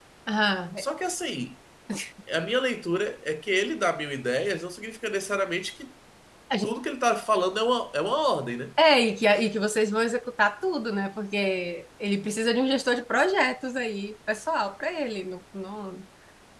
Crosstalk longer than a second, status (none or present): none